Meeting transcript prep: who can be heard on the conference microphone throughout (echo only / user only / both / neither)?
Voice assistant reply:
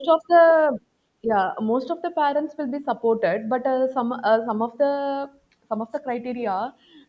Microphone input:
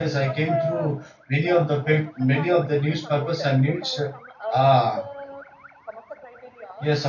both